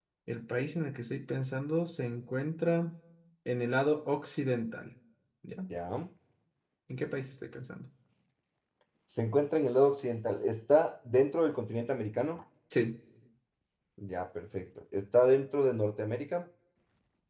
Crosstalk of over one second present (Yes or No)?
No